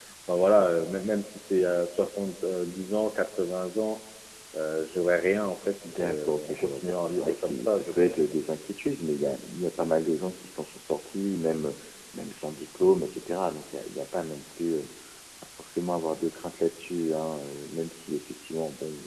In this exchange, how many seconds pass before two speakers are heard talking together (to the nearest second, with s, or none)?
6 s